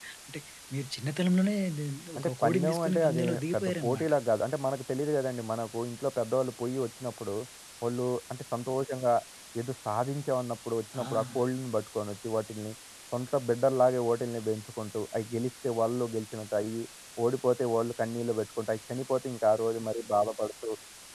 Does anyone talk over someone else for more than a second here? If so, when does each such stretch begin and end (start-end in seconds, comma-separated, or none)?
2.1-4.1